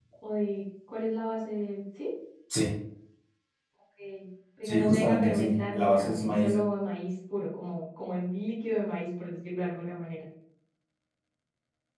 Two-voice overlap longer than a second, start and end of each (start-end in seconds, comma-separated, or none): 4.6-6.5